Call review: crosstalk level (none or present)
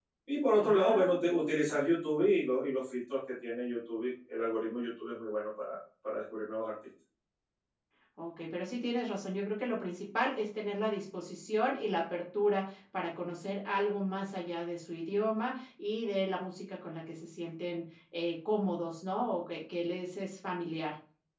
present